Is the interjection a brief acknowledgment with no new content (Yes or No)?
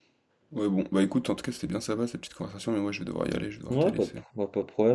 No